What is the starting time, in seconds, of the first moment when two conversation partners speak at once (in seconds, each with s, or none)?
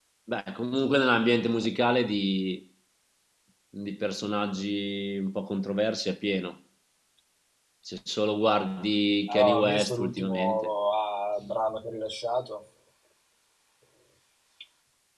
9.3 s